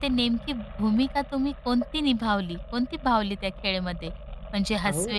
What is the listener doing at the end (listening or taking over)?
listening